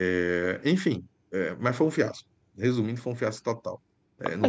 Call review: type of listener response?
taking over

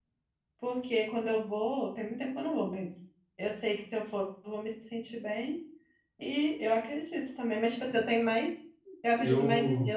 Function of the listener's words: listening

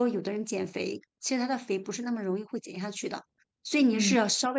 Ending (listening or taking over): listening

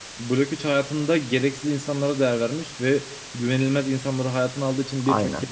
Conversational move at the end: listening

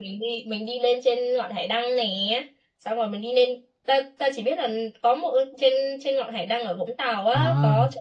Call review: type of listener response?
taking over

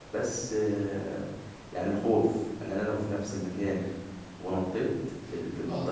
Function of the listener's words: listening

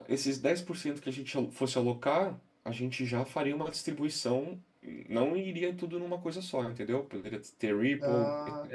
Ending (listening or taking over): listening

